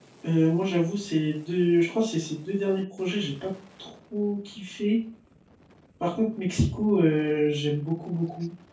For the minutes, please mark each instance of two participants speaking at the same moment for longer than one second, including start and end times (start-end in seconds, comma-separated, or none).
none